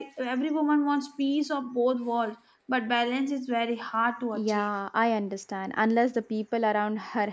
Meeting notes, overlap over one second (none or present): none